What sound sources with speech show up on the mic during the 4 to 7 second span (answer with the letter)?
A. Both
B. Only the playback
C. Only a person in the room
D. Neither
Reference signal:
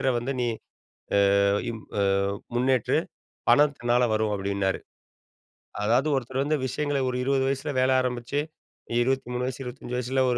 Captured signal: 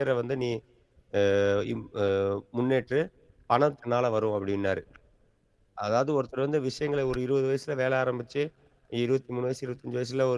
B